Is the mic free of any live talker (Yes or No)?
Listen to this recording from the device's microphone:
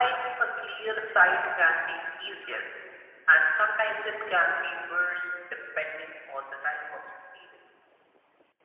Yes